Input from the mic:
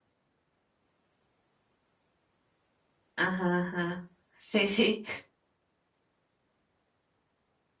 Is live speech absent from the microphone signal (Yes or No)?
No